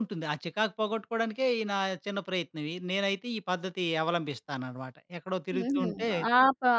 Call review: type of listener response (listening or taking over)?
taking over